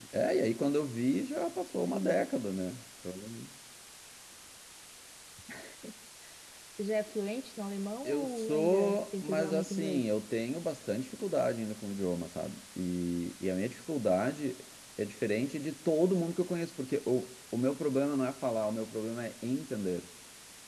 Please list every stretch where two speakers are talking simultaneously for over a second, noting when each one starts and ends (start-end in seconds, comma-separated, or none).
8.1-10.0